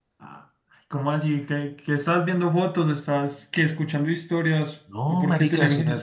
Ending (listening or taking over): taking over